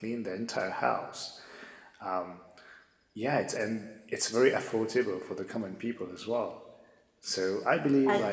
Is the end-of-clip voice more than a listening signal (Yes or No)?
No